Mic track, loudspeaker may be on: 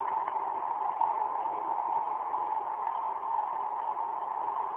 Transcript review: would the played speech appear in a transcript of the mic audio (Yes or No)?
No